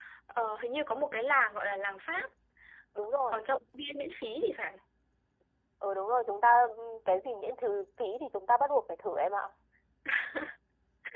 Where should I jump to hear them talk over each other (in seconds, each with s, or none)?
none